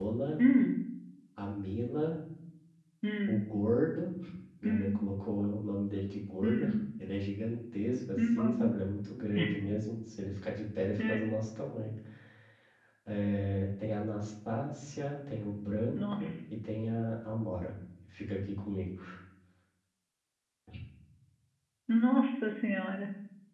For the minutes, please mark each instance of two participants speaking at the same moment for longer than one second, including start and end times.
none

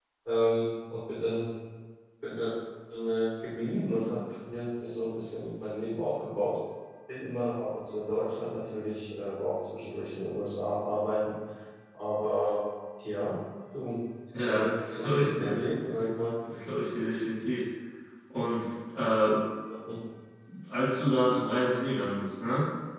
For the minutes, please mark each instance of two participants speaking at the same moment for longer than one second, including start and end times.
14.4-15.6

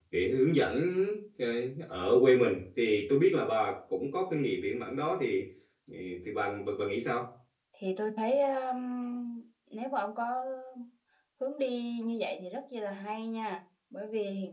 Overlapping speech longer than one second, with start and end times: none

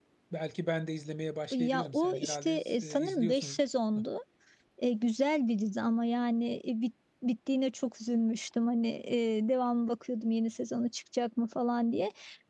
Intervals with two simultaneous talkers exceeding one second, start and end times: 1.5-3.6

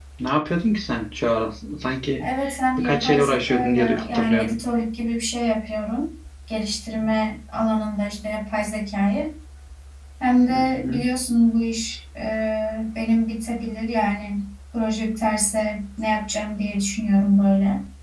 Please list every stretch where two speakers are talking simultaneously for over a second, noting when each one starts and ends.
2.8-4.6

